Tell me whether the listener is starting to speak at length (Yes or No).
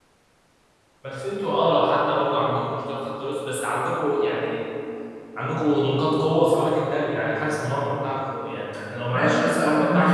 Yes